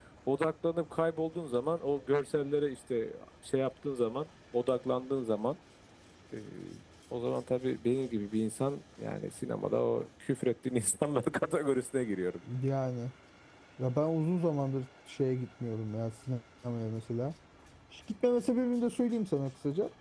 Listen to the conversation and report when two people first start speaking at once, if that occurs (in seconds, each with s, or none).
none